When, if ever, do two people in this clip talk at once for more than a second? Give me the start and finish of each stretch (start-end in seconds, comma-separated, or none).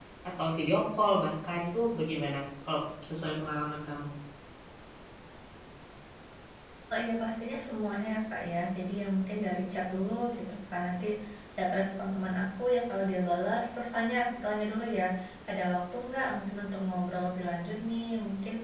none